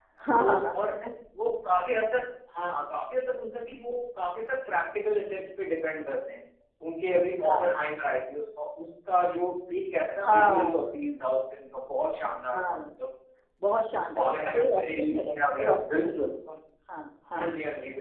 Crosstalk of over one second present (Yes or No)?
Yes